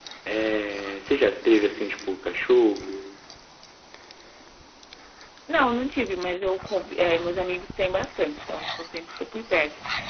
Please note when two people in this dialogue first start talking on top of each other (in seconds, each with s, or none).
none